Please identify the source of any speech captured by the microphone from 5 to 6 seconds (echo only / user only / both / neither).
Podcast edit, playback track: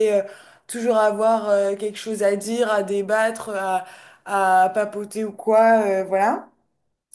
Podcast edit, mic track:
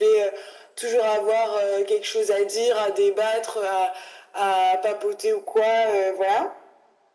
echo only